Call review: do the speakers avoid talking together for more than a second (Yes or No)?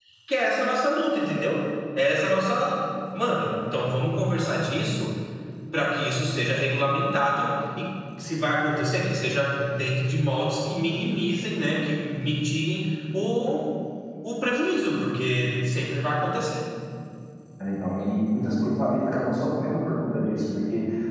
Yes